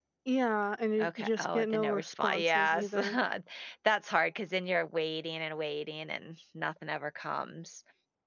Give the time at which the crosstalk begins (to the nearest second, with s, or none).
1 s